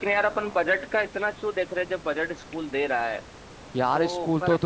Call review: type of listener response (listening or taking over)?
taking over